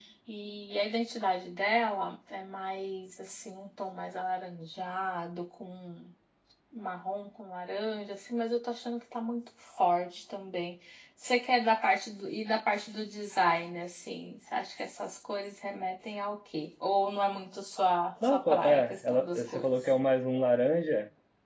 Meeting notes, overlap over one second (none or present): present